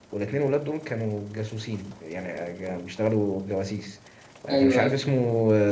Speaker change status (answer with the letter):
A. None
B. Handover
A